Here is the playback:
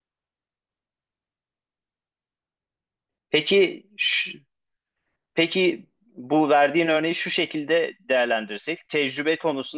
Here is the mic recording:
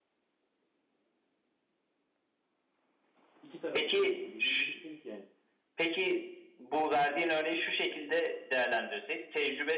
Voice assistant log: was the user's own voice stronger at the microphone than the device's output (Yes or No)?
No